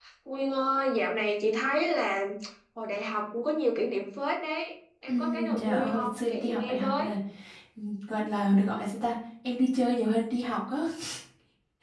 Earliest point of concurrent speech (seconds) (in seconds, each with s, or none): 5.1 s